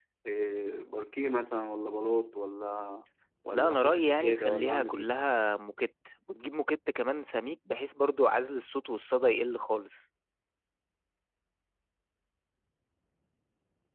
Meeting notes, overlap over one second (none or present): present